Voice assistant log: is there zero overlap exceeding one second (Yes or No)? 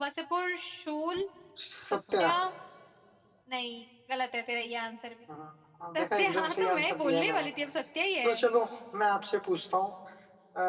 No